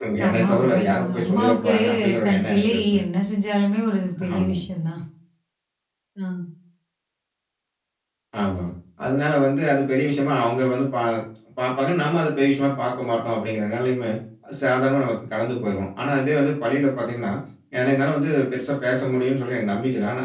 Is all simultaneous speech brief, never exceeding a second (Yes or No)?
No